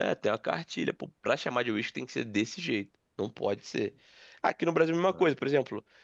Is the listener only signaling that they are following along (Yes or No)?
Yes